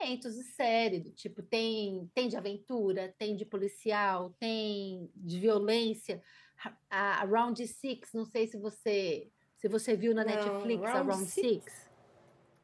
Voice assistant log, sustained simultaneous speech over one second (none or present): present